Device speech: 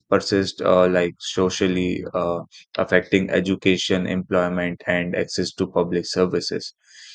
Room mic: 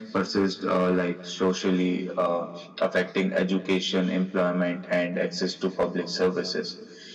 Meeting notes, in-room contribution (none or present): none